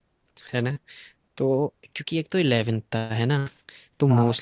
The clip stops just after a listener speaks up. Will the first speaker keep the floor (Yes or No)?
Yes